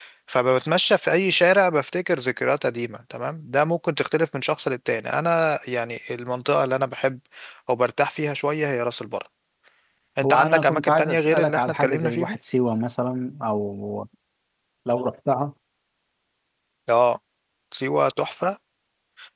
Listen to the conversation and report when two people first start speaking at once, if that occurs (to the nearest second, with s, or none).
10 s